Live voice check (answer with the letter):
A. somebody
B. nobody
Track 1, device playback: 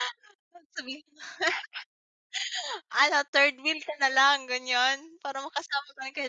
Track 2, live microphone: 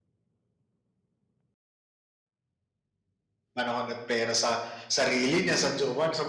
A